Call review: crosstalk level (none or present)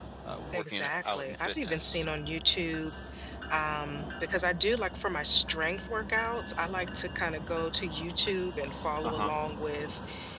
present